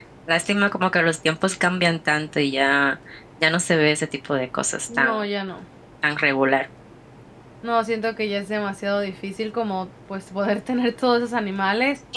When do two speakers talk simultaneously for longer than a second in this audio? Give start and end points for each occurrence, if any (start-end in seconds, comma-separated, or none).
none